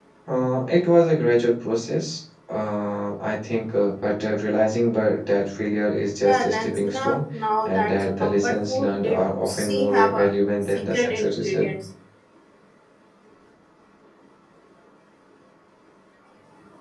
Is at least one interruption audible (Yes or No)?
Yes